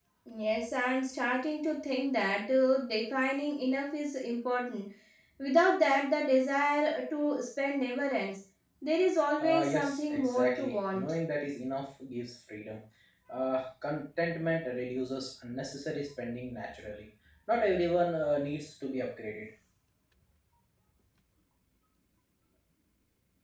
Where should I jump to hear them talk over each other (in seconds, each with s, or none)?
9.4 s